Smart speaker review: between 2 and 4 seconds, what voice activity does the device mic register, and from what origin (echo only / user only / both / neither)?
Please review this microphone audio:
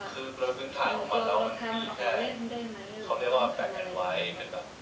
both